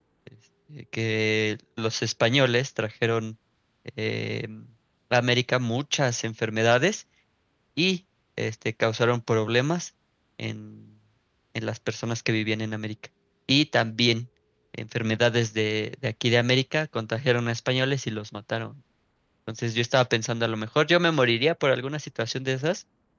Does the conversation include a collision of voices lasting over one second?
No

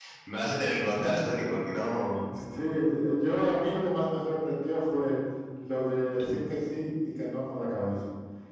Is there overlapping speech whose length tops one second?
No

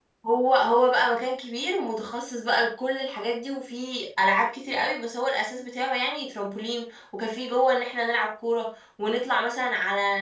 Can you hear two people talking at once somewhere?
No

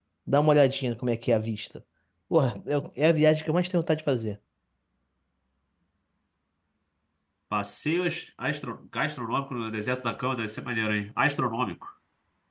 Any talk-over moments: No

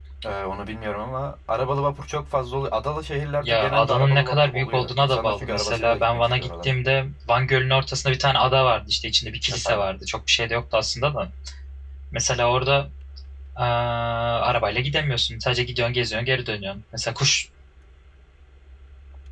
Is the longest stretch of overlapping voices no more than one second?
No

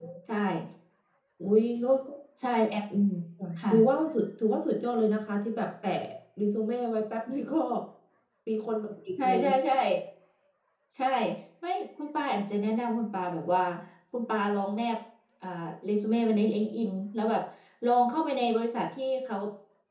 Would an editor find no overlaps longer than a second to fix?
Yes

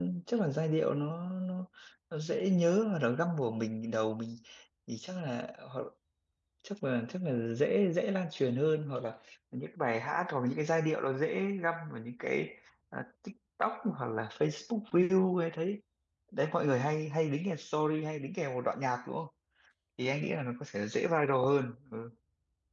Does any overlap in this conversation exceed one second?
No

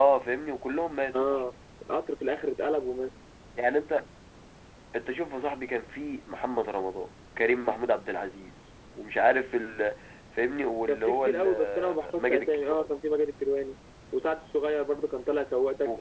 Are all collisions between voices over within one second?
No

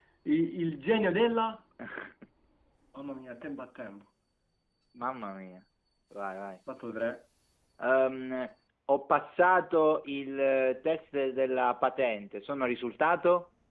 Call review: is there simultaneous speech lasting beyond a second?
No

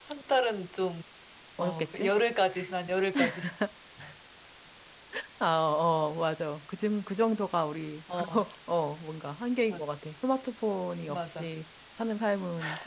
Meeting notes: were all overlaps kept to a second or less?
Yes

